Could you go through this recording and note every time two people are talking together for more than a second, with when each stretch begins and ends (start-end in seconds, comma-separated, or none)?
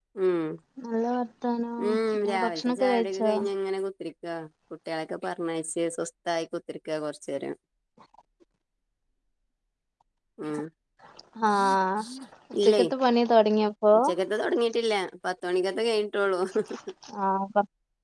1.9-3.3